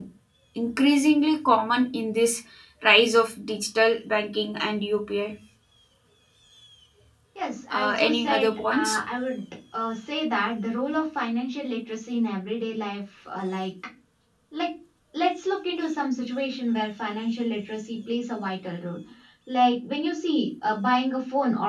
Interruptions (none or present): present